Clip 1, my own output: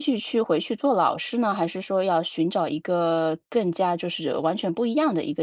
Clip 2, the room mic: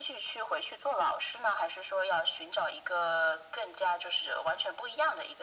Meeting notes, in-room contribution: none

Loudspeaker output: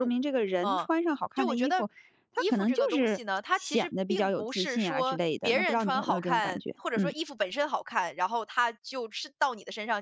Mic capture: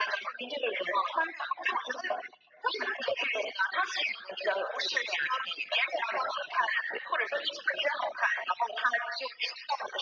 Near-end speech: none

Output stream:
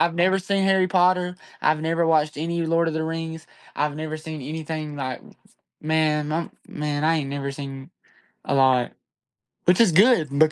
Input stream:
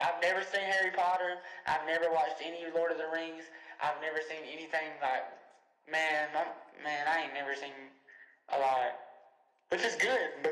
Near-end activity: none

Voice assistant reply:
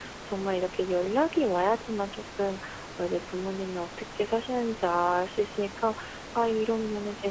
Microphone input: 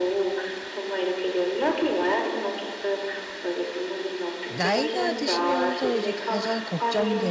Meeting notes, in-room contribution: present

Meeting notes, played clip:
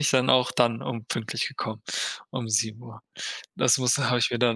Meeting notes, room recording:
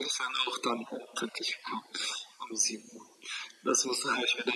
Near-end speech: none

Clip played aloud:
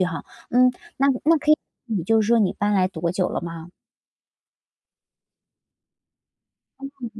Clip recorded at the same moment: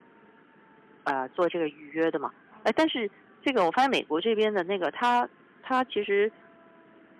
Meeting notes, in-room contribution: present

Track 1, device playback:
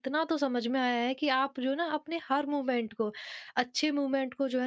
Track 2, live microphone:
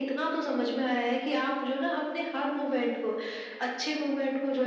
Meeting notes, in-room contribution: none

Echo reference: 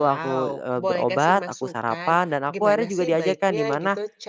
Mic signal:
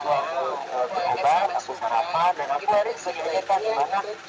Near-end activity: none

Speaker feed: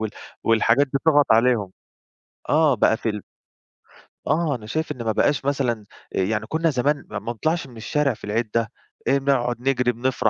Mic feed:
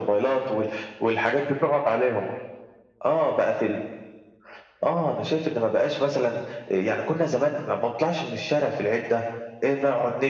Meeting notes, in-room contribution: none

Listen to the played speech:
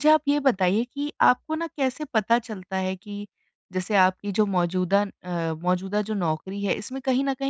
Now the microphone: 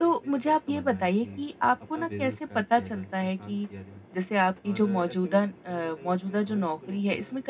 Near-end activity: present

